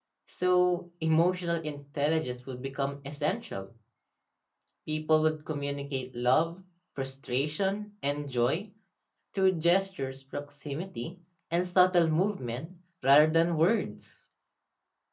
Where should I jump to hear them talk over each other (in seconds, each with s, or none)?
none